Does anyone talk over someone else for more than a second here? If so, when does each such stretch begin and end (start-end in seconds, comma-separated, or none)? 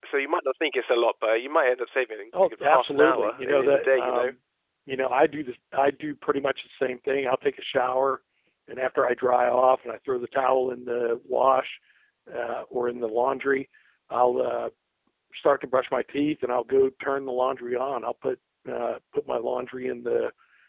2.4-4.3